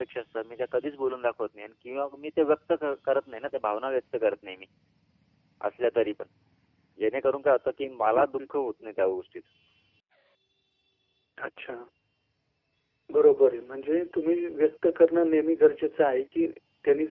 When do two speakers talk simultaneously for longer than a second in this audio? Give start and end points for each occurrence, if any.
none

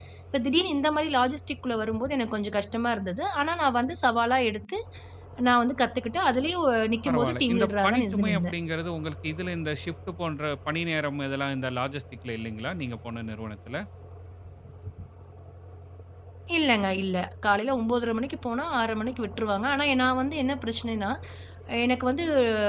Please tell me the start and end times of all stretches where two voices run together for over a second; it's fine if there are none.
7.0-8.6

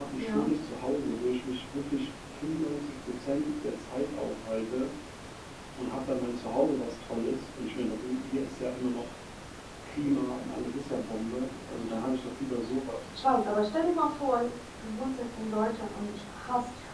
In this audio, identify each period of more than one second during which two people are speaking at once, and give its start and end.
none

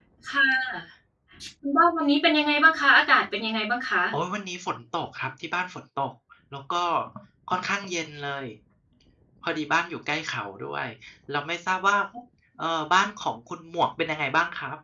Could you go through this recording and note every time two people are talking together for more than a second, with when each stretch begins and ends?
none

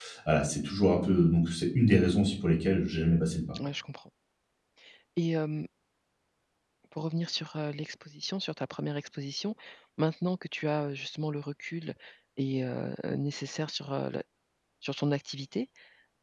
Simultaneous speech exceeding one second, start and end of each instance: none

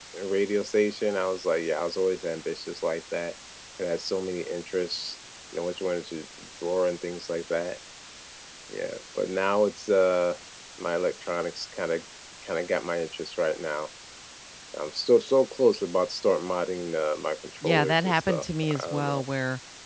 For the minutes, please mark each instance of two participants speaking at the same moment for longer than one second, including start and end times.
17.6-19.2

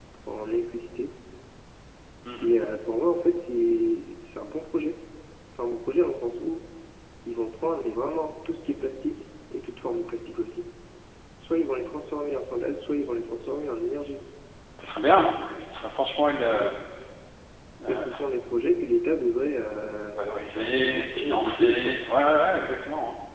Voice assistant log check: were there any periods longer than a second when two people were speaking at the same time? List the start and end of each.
20.6-22.0

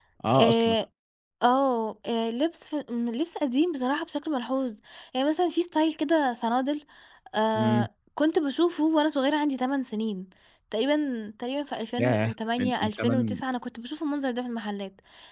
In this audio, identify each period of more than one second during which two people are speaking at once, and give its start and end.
12.0-13.4

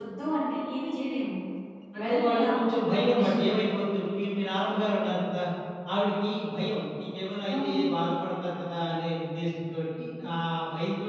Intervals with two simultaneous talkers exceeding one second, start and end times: 2.0-3.5

